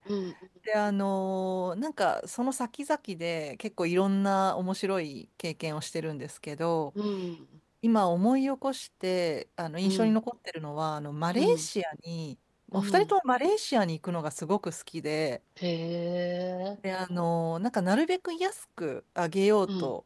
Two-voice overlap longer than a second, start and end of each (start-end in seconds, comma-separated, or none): none